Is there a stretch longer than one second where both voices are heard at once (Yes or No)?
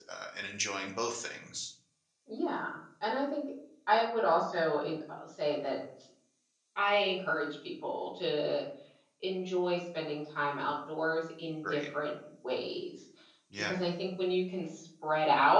No